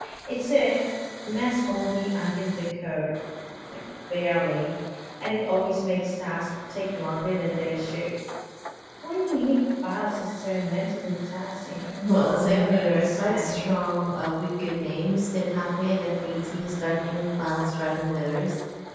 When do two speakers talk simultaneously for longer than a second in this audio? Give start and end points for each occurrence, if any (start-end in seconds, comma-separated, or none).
12.3-13.6